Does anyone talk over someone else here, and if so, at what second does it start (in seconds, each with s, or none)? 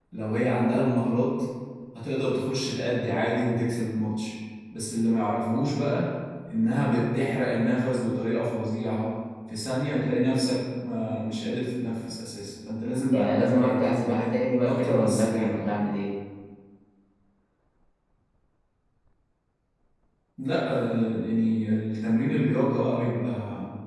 13.1 s